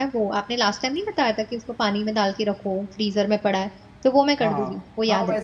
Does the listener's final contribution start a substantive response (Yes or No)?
Yes